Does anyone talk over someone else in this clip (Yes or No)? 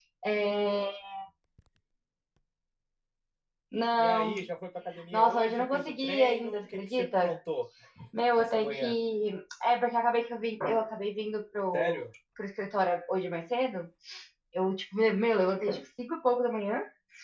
Yes